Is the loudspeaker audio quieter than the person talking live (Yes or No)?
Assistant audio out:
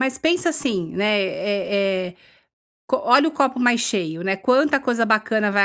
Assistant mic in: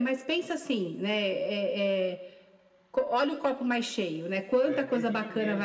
No